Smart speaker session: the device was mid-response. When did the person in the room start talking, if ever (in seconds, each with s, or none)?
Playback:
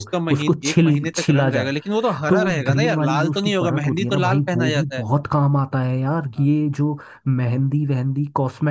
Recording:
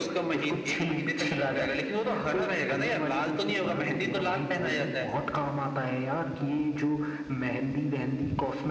none